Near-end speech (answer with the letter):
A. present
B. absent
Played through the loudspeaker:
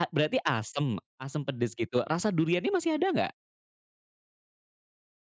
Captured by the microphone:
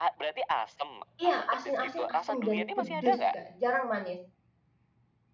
A